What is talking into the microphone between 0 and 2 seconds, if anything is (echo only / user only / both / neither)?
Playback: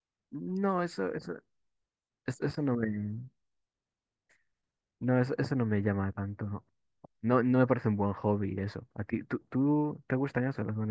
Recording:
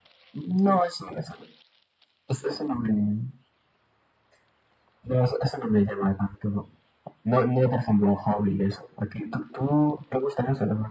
echo only